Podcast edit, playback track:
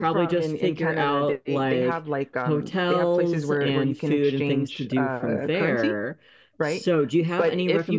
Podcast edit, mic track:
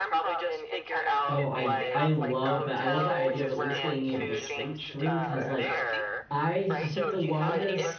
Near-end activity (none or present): present